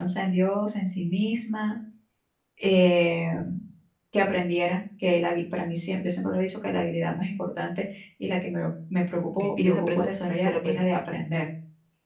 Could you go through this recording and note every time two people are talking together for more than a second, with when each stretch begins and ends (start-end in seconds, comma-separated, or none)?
9.4-10.9